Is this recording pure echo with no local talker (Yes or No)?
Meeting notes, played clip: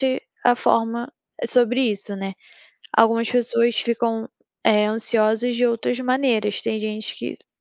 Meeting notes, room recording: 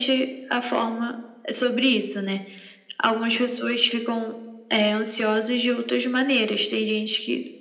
Yes